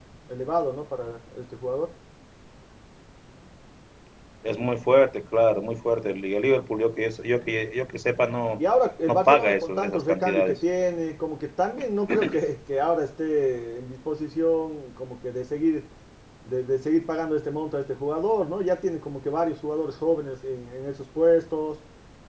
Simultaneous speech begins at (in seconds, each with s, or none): 9.1 s